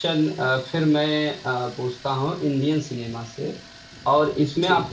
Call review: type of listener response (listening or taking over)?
listening